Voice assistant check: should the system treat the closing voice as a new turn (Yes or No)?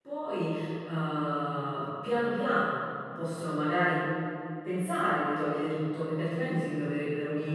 No